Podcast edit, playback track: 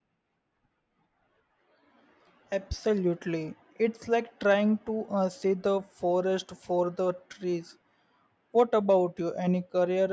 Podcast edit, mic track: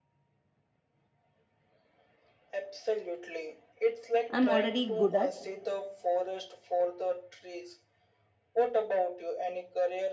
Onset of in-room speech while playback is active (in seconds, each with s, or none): 4.3 s